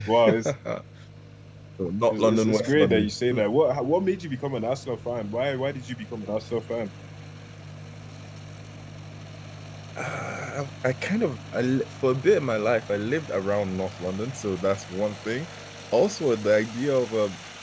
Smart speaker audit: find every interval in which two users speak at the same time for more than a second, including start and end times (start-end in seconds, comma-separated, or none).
2.1-3.4